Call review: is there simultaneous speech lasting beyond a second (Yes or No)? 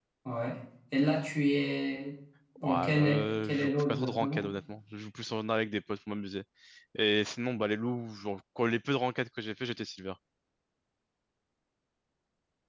Yes